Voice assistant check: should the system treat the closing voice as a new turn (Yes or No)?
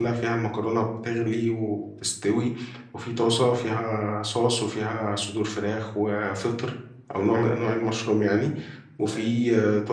No